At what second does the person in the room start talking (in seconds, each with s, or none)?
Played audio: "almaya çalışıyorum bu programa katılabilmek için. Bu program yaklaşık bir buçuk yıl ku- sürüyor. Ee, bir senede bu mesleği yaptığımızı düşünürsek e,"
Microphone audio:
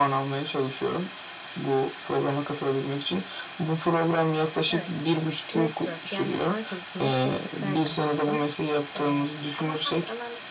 4.7 s